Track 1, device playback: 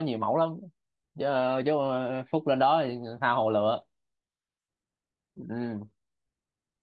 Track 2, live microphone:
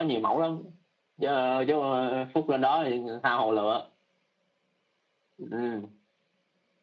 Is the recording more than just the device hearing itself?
No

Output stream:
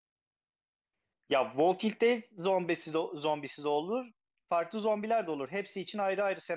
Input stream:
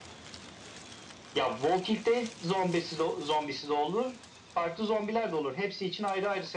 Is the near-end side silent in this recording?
Yes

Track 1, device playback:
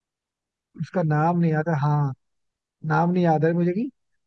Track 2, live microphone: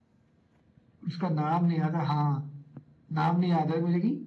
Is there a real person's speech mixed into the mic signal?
No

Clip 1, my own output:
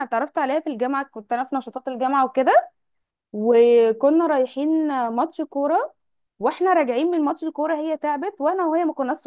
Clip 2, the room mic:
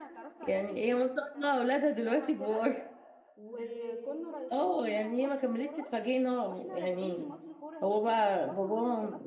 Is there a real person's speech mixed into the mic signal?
Yes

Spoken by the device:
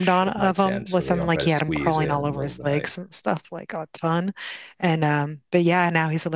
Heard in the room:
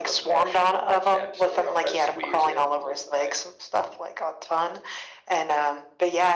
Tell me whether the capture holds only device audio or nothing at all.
Yes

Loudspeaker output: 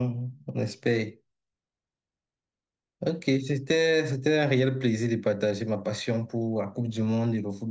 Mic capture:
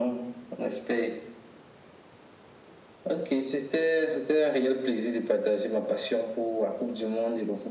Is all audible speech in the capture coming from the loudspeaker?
Yes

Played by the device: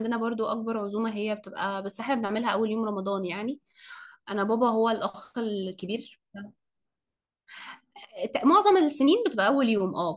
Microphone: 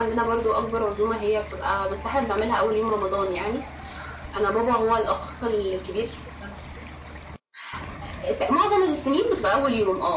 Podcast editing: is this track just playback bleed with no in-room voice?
Yes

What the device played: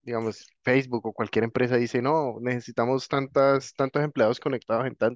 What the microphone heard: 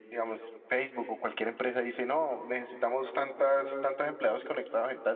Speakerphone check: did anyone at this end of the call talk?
No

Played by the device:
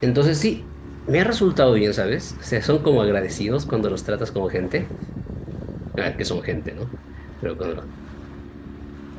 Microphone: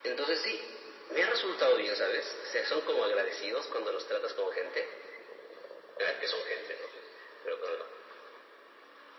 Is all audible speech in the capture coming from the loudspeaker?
Yes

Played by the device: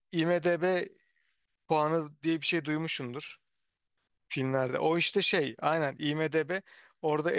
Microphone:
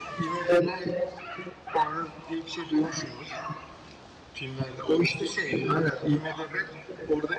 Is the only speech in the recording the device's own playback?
Yes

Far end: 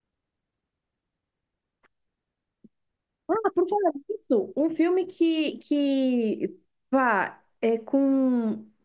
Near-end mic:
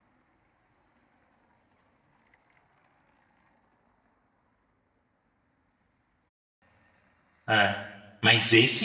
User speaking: Yes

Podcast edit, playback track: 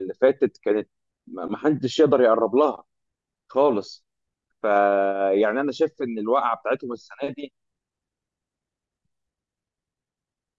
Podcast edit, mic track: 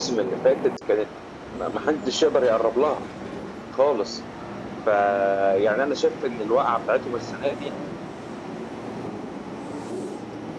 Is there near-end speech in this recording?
No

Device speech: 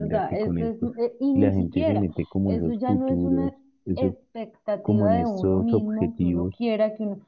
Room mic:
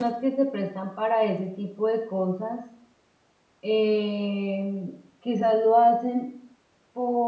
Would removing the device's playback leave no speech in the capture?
No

